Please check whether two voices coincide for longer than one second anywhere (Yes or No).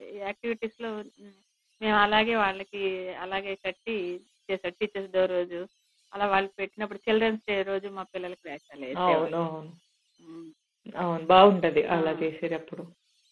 No